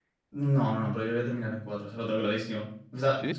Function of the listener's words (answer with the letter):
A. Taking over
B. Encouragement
B